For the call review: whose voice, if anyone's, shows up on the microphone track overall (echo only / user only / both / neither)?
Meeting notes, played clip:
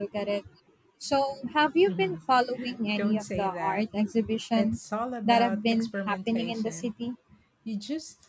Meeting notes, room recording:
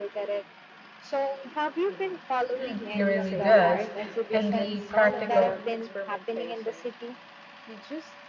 both